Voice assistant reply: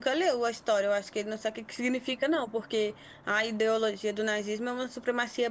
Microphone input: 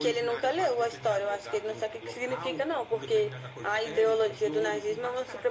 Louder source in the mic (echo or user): echo